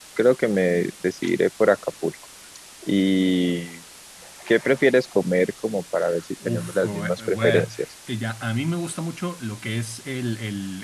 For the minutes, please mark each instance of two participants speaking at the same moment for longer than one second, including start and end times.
6.5-7.7

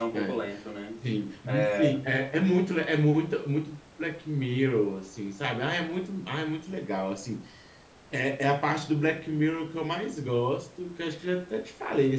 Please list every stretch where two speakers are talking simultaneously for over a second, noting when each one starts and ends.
none

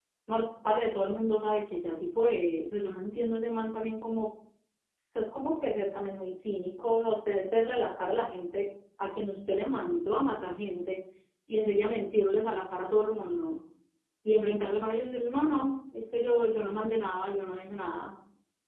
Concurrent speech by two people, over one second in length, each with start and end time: none

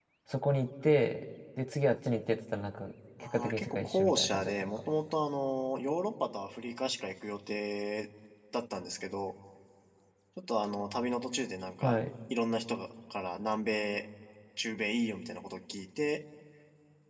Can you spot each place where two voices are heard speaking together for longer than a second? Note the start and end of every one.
3.2-4.7

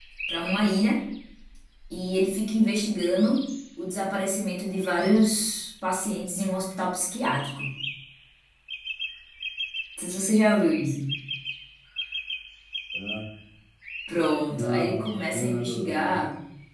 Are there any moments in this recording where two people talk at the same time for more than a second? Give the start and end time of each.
14.5-16.2

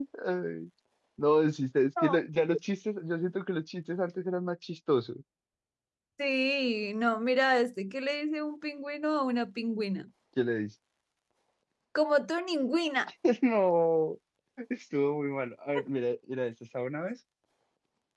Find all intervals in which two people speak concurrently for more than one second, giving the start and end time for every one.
none

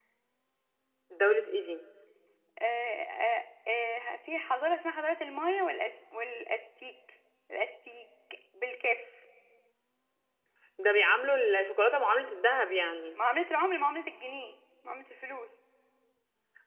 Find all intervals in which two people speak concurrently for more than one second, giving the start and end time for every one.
none

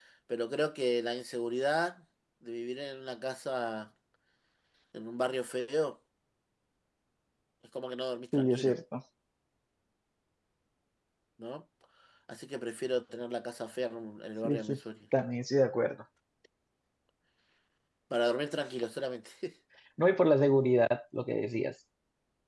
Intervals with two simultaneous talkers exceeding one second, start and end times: none

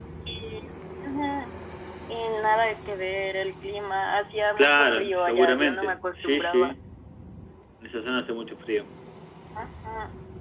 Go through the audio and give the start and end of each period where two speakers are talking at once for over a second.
4.6-6.7

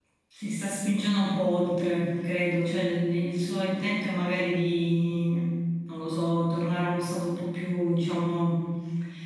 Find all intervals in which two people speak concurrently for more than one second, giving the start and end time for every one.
none

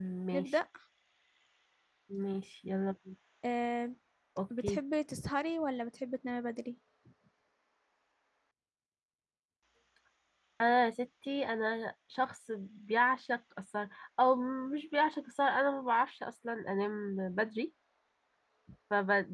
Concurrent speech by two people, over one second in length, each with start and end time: none

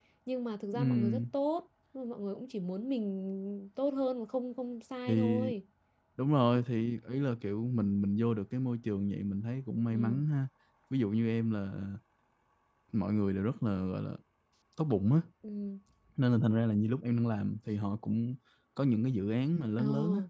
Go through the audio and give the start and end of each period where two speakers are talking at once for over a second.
none

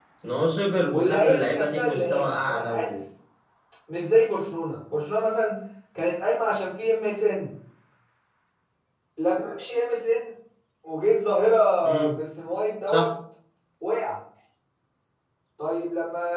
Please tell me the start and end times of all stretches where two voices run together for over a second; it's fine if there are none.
0.9-3.0

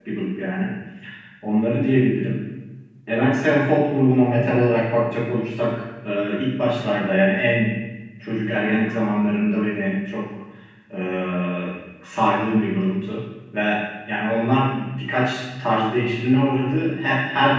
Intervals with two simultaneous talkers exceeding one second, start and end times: none

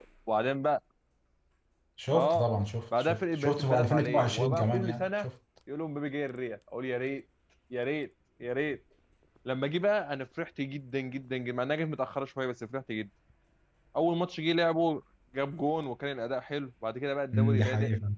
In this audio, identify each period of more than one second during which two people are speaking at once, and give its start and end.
3.0-5.3

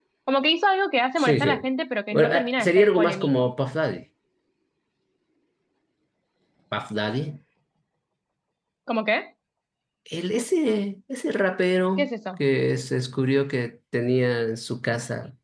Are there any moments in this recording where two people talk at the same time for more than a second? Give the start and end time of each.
2.1-3.5

